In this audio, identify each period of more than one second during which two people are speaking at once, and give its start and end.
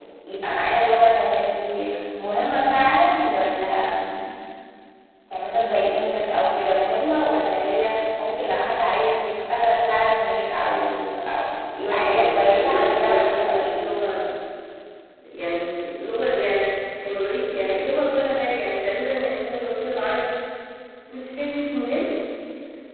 11.8-13.8

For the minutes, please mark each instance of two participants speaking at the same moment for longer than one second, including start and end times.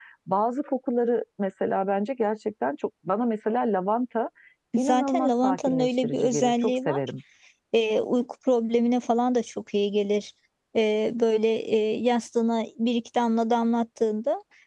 4.8-7.0

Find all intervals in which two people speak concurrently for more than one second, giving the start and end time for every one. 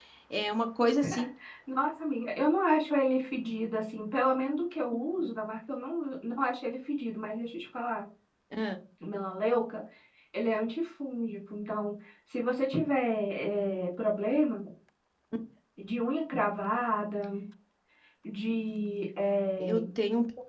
none

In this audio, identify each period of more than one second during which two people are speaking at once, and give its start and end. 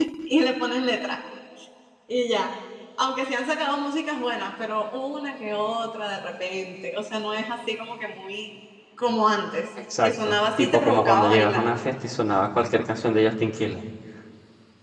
10.0-11.7

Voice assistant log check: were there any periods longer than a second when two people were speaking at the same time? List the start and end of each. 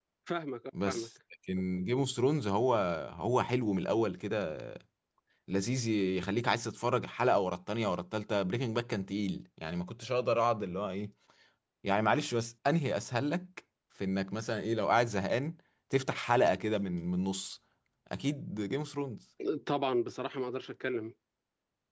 none

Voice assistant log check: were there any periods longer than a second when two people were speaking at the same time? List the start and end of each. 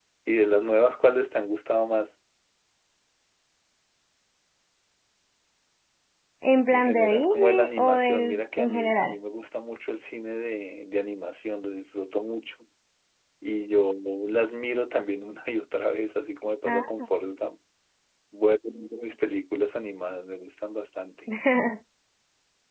6.7-9.1

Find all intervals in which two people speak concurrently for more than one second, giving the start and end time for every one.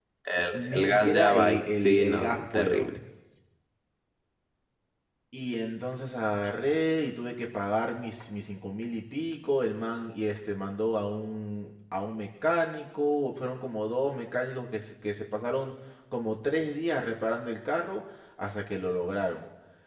0.5-2.9

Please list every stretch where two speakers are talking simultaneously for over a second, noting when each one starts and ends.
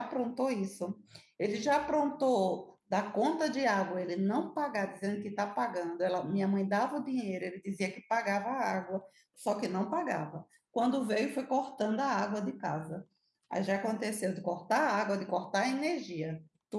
none

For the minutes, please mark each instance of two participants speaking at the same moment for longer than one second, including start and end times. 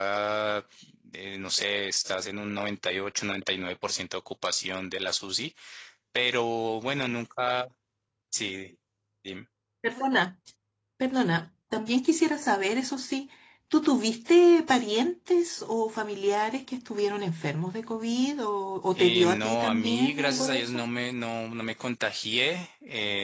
19.0-20.8

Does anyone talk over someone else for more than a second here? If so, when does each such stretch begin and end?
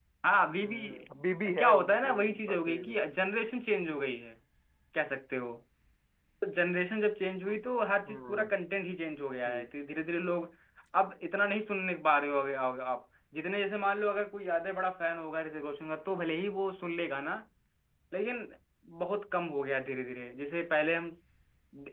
1.6-3.0

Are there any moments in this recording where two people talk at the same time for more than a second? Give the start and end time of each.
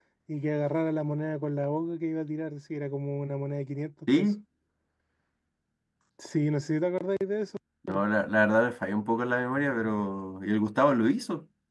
none

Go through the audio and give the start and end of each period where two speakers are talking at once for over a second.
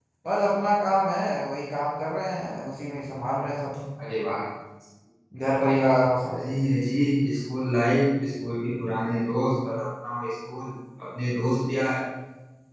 none

